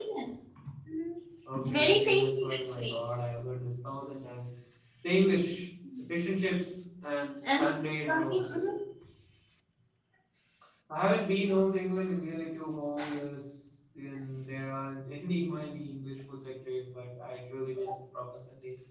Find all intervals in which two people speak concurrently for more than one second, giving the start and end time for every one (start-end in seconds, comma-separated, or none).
1.5-3.0